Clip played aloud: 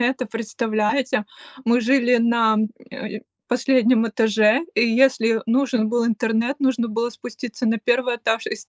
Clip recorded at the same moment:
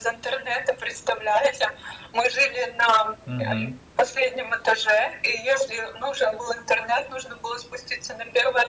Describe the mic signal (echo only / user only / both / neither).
both